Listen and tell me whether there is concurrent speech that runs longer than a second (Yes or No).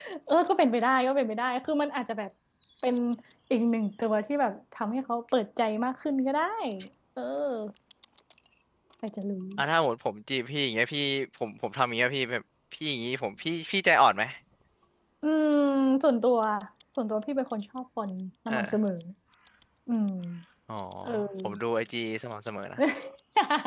No